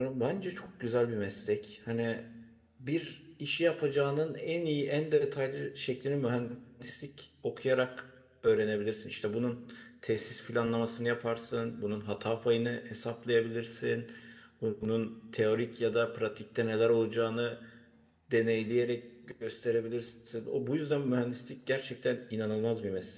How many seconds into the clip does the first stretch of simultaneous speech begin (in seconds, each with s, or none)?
none